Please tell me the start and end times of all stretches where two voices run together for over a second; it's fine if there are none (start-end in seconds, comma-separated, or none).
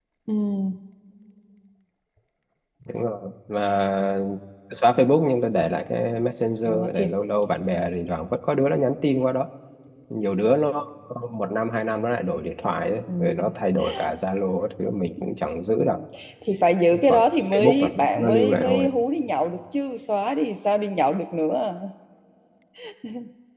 17.1-18.9